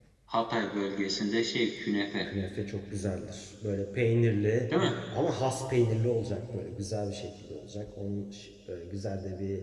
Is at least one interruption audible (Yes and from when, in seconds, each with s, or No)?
No